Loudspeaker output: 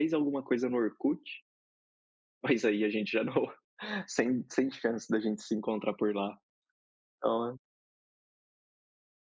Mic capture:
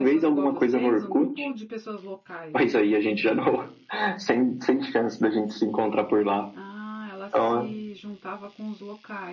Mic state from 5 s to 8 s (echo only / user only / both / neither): both